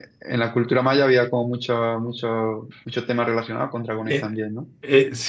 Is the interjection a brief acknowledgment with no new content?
No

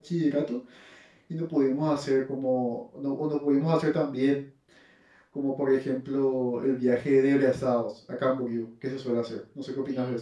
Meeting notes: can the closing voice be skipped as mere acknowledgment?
No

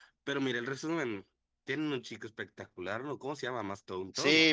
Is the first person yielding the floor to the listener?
Yes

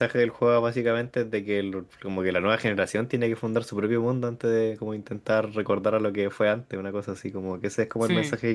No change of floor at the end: Yes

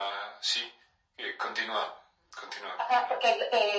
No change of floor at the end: No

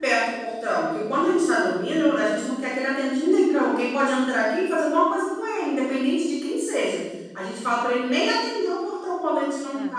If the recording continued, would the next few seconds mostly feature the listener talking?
No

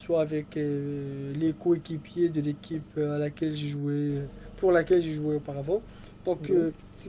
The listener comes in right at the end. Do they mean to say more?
No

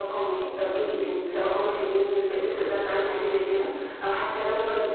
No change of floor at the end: Yes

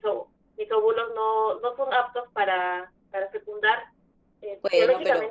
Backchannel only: Yes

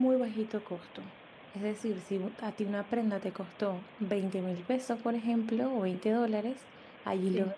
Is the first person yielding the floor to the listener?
No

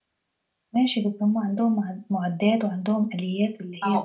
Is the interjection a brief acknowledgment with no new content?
No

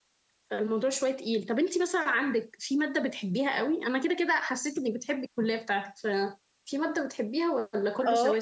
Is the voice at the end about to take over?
Yes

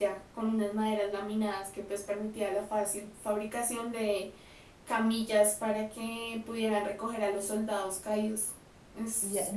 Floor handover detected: Yes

